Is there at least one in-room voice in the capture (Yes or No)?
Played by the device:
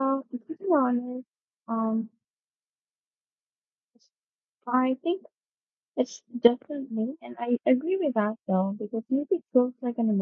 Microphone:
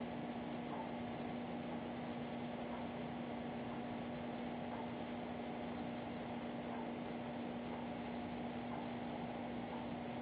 No